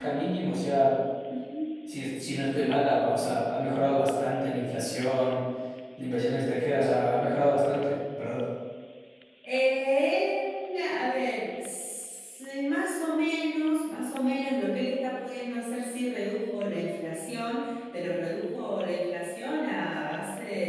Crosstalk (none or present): none